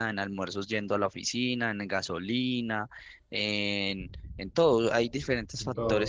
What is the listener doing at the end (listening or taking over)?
listening